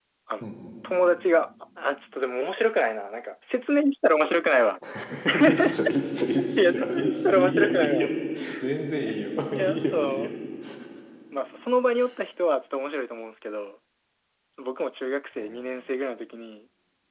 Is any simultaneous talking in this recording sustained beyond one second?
Yes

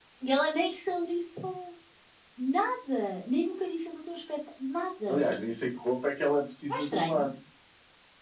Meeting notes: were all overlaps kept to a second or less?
Yes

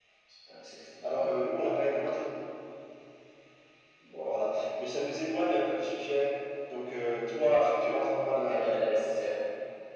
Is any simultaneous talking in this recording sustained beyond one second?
No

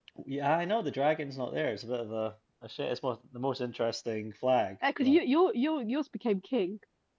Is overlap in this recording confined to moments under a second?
Yes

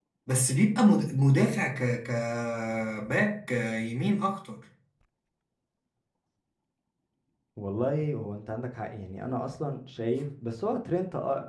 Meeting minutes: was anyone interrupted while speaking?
No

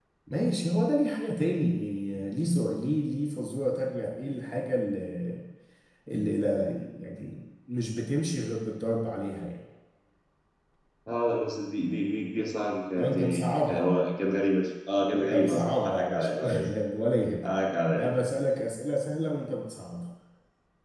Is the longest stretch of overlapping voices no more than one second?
No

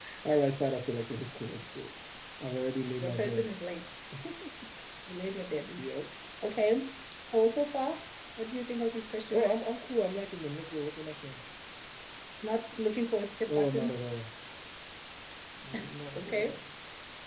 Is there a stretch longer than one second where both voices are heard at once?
No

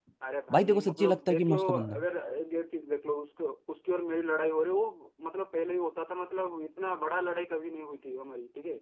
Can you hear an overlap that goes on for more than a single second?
Yes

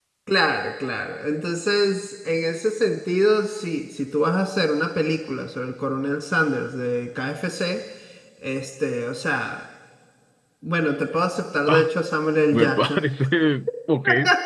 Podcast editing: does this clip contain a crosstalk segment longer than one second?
No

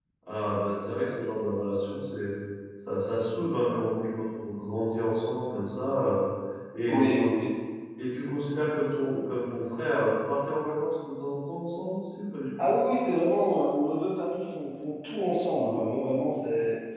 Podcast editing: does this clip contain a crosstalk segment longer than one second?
No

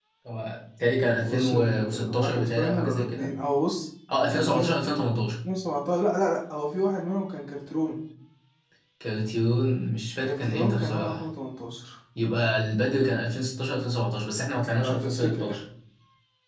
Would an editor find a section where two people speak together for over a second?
Yes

